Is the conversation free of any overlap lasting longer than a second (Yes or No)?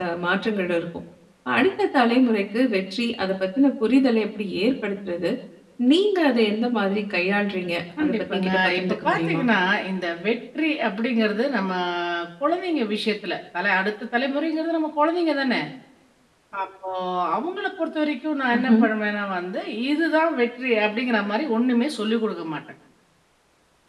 No